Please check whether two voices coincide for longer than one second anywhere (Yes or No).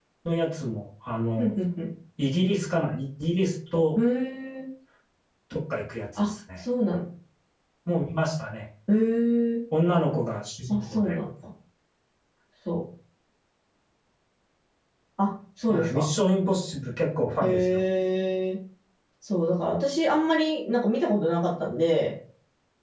No